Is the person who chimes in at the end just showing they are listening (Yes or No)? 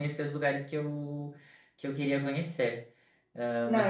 No